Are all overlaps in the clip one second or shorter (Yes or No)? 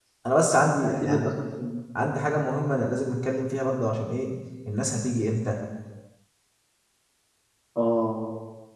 Yes